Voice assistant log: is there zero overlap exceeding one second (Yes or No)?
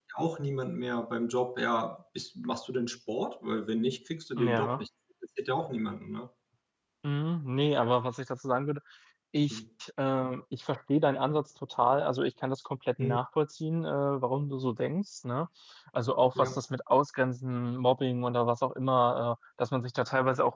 Yes